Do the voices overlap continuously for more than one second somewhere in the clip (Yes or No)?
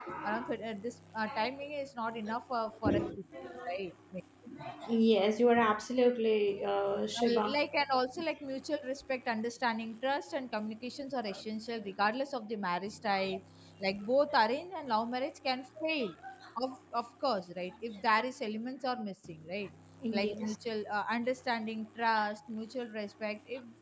No